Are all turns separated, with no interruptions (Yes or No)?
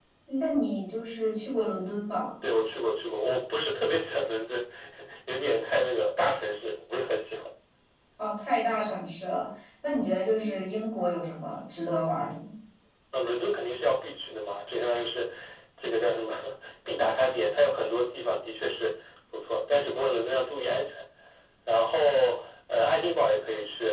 Yes